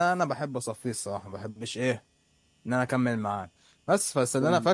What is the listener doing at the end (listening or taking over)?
listening